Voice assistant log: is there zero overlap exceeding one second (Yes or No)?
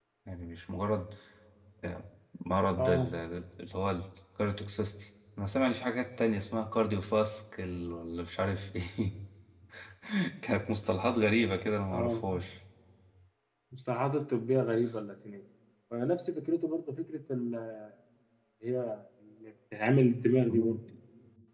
Yes